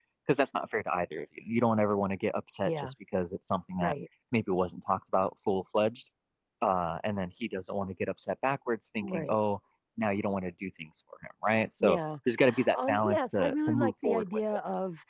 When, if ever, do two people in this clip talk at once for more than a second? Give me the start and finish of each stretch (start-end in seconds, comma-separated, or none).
12.7-14.4